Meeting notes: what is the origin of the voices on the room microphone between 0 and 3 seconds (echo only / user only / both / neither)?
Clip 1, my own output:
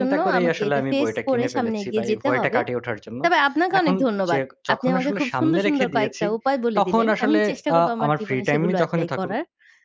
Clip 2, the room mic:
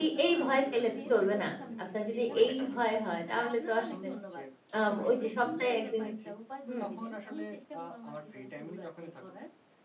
both